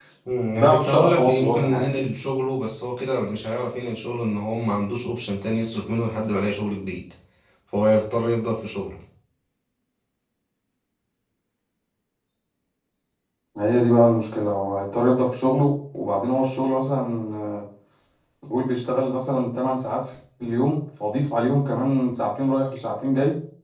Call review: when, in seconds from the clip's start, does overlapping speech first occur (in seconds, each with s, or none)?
0.6 s